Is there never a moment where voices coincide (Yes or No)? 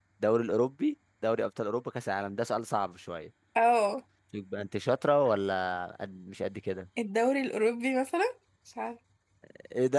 Yes